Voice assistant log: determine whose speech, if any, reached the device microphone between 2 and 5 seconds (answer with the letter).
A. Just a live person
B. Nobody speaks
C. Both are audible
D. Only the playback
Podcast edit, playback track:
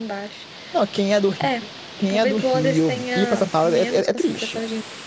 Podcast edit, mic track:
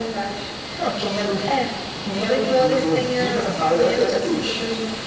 D